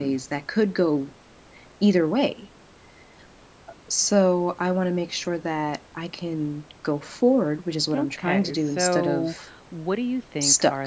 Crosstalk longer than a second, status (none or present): present